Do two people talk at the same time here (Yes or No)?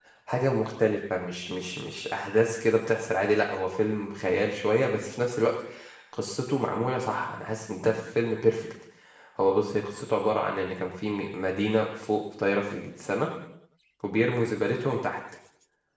No